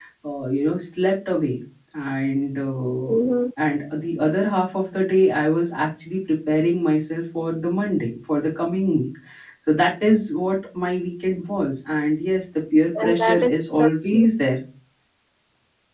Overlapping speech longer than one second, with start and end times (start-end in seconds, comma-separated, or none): 13.0-14.3